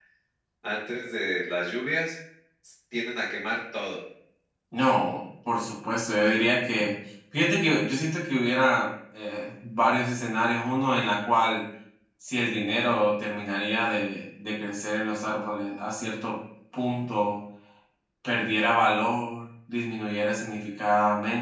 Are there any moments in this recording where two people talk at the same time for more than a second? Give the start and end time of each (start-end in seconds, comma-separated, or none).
none